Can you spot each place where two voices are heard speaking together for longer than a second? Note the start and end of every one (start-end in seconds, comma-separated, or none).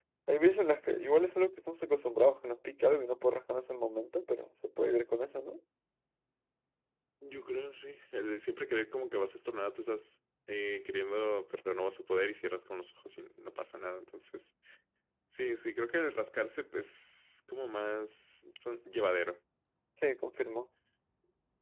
none